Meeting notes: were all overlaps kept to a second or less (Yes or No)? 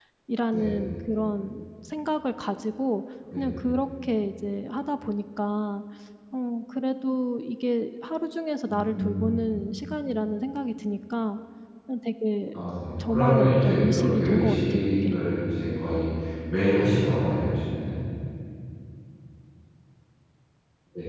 No